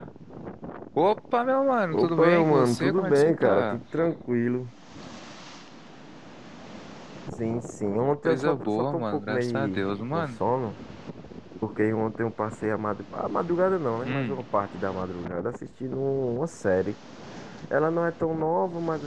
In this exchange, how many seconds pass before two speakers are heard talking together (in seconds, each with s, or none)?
1.9 s